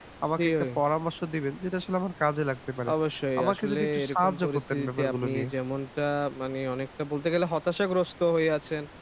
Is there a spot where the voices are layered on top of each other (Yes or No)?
Yes